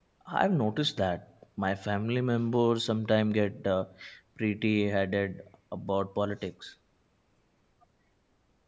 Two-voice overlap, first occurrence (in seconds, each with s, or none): none